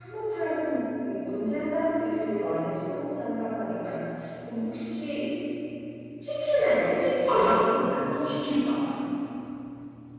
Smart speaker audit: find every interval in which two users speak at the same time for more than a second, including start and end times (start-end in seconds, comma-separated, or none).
none